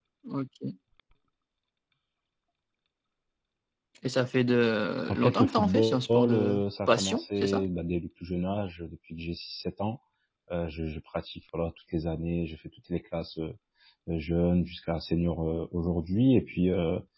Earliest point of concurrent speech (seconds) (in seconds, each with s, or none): 5.1 s